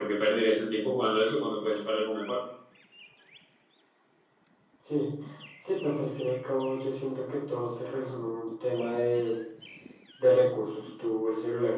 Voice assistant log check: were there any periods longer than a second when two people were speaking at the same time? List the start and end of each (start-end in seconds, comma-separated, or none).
none